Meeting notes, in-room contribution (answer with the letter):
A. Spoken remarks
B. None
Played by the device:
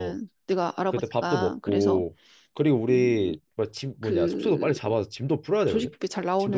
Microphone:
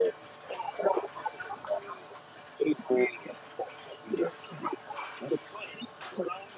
B